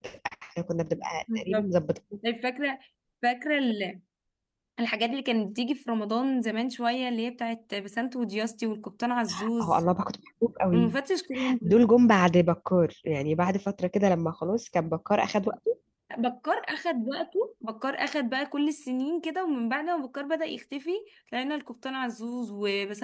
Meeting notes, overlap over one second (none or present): none